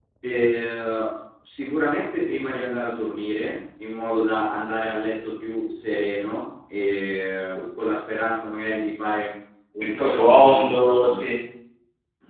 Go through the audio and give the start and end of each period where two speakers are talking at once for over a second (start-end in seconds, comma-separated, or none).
9.8-11.2